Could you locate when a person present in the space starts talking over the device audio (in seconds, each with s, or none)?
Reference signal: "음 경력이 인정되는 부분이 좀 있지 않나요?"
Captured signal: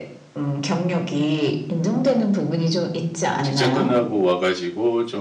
3.4 s